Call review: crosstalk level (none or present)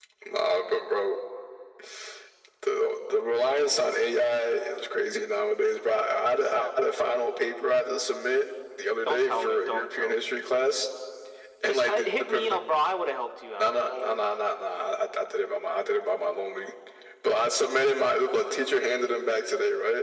present